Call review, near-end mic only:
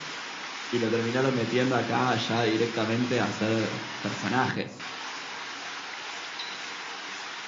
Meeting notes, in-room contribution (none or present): none